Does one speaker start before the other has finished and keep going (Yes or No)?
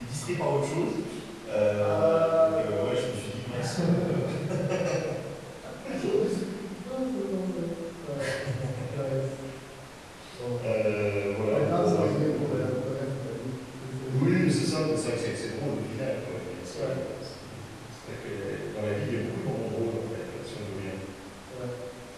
Yes